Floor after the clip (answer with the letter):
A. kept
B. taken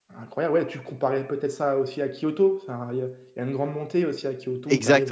B